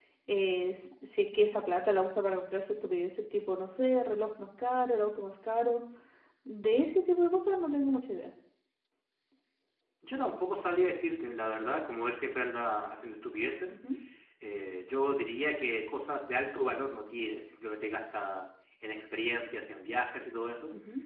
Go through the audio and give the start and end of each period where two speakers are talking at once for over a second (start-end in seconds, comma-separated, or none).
none